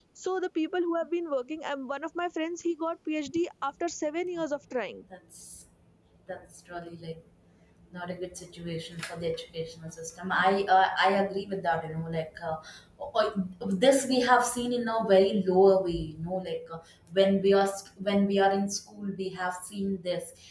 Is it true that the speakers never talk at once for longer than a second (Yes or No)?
Yes